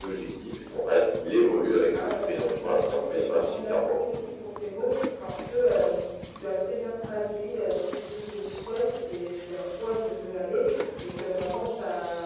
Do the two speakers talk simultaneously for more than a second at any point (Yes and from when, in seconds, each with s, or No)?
Yes, from 1.9 s